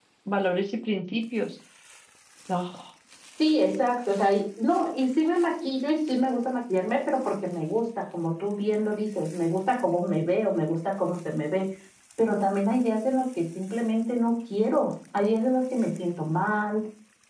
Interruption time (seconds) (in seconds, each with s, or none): none